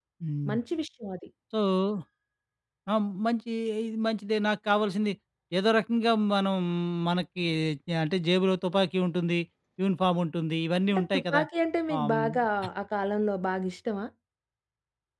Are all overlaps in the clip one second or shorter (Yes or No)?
Yes